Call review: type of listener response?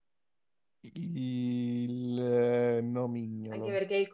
taking over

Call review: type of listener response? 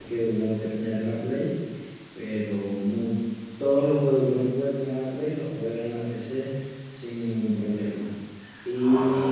listening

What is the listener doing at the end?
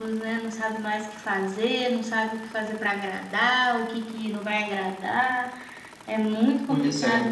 listening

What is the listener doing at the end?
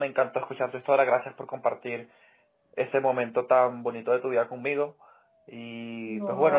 listening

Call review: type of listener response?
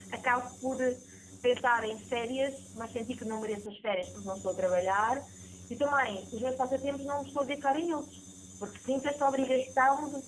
listening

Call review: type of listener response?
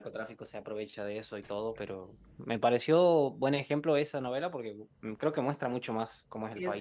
taking over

